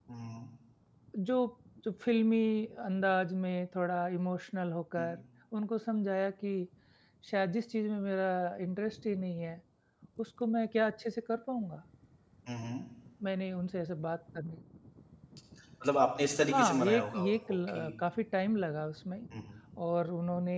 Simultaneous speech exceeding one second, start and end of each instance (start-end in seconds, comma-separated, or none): 16.5-17.9